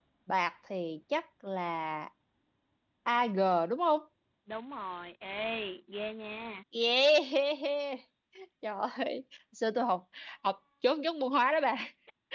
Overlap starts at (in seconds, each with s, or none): none